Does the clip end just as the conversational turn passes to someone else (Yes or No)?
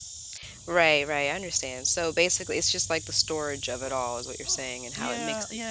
Yes